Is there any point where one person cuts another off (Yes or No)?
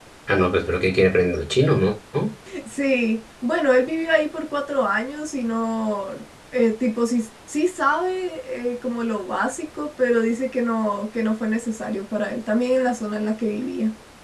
No